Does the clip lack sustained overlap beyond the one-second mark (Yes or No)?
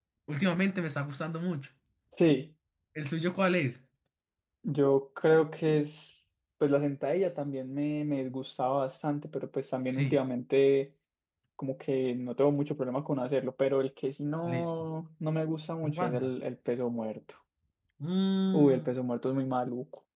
Yes